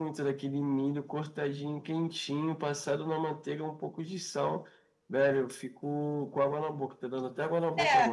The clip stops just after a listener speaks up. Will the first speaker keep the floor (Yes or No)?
No